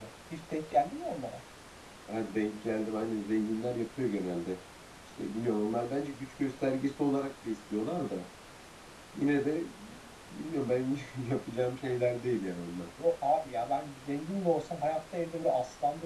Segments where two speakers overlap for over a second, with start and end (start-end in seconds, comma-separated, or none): none